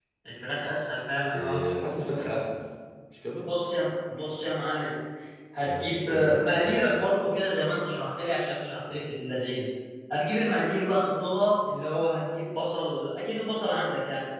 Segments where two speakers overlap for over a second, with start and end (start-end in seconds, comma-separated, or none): 5.6-7.0